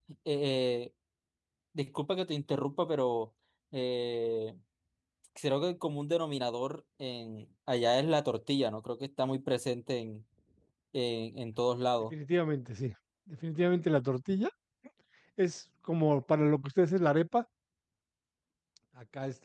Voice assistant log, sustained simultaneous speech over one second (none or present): none